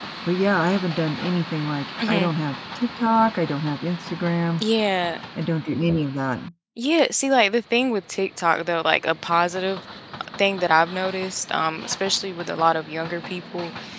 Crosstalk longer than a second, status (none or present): none